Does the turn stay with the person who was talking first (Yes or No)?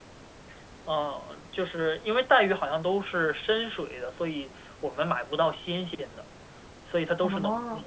Yes